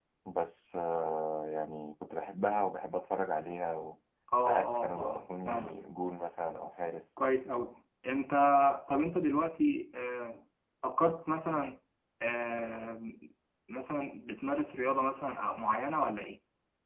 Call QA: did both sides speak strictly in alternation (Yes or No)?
No